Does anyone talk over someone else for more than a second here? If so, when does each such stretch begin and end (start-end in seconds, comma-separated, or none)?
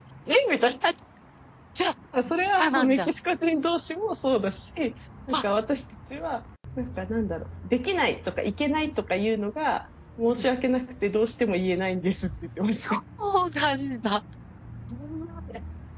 none